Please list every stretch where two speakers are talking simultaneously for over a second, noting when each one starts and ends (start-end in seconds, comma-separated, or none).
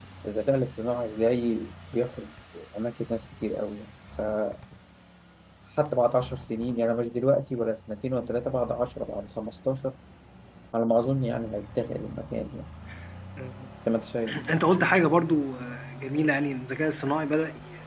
none